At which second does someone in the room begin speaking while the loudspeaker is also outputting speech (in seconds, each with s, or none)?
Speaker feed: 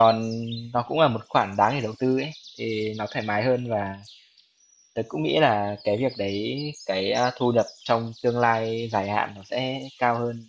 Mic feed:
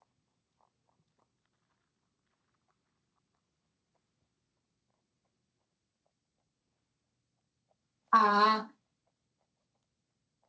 8.1 s